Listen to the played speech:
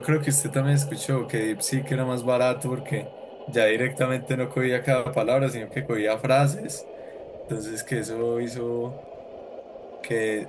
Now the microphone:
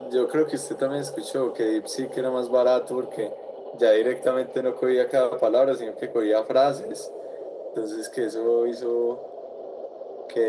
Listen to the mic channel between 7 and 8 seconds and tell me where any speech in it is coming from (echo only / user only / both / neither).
echo only